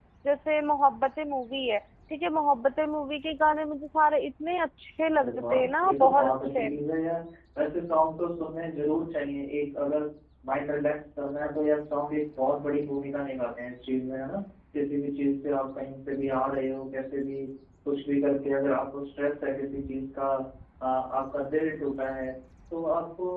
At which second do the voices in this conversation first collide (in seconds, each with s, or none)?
5.1 s